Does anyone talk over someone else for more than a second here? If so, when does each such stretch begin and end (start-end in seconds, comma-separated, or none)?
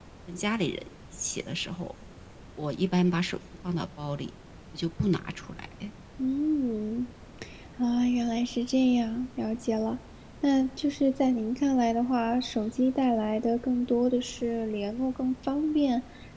none